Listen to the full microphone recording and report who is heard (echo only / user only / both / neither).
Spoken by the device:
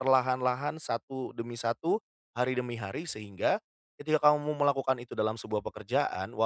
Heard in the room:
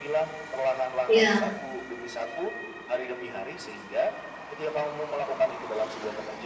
both